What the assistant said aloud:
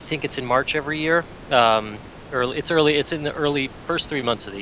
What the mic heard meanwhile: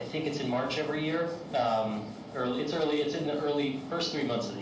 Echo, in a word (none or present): present